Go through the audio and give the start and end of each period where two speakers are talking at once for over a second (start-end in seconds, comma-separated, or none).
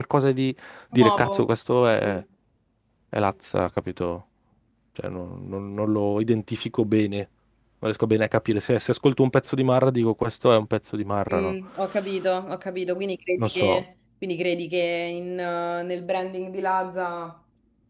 none